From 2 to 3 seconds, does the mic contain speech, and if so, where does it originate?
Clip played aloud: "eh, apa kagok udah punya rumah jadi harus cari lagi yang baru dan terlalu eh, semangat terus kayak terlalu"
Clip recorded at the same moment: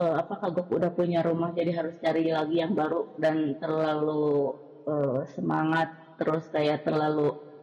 echo only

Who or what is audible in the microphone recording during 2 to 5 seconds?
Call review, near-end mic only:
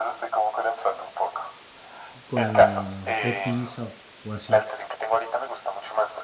both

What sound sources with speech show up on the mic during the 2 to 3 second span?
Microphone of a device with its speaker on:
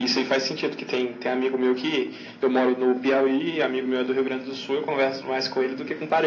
echo only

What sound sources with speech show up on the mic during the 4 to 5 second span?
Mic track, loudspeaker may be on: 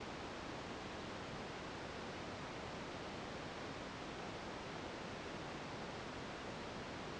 neither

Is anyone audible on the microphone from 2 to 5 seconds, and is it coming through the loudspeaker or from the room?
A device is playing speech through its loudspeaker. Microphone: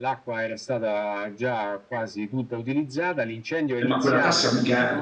both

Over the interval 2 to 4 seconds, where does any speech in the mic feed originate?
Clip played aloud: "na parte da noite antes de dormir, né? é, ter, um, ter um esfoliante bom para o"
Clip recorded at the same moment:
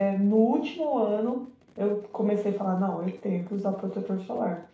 user only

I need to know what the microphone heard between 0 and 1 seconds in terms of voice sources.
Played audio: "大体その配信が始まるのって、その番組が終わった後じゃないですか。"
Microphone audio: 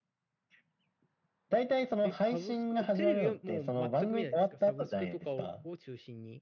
neither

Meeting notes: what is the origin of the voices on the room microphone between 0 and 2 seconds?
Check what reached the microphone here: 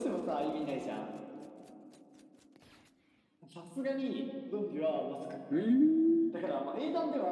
echo only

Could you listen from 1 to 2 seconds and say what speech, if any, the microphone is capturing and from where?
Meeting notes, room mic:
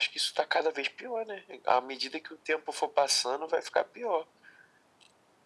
echo only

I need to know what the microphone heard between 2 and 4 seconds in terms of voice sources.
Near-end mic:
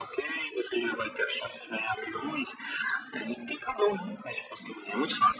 echo only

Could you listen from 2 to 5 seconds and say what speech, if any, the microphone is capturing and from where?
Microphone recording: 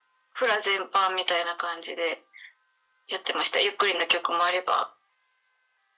echo only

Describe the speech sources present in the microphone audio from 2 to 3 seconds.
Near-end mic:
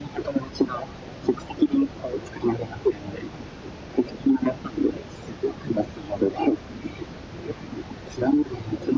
echo only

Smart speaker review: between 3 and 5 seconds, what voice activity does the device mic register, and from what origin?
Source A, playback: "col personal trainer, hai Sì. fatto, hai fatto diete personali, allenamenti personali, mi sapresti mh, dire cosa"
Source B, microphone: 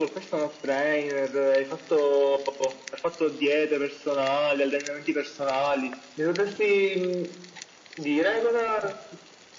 echo only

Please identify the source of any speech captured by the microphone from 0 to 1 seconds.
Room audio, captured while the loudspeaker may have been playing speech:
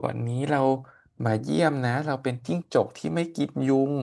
user only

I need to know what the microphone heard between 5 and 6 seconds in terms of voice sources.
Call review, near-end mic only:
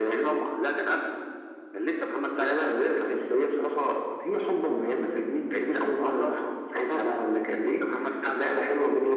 echo only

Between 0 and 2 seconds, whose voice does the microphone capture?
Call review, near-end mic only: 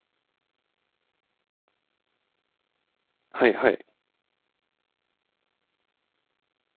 neither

